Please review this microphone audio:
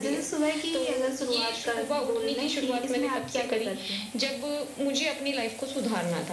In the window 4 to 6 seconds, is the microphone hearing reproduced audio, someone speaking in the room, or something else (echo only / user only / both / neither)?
echo only